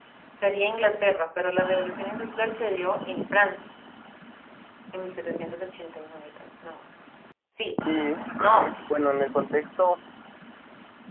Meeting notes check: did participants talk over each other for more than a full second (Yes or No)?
No